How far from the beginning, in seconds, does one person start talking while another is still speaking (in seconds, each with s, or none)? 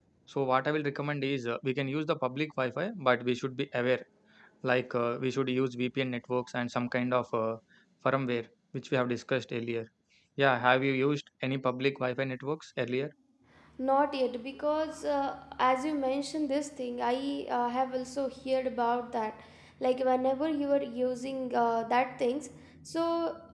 none